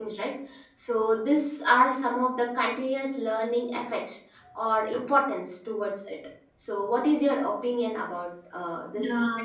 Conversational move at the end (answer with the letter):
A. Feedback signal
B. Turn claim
B